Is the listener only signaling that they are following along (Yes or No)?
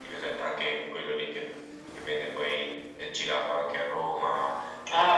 No